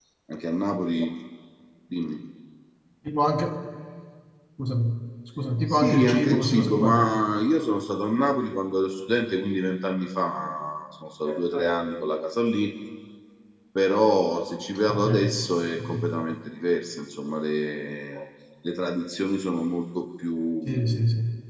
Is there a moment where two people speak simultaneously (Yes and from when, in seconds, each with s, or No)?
Yes, from 5.7 s